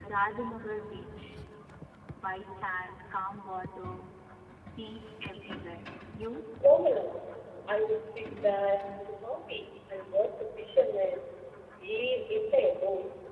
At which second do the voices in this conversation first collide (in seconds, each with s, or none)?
none